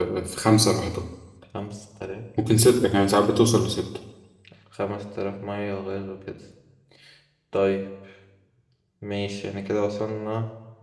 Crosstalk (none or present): none